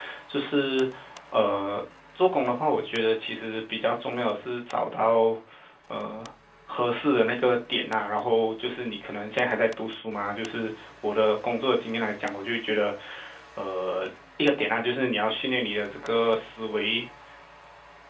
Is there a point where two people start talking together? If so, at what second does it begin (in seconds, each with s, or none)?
none